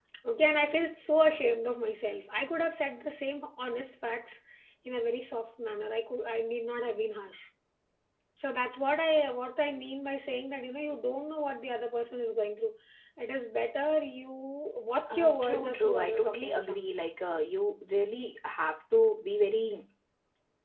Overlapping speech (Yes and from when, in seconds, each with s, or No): Yes, from 15.1 s